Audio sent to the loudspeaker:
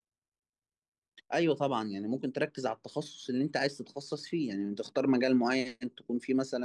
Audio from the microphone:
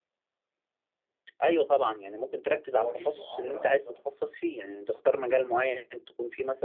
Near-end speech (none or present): present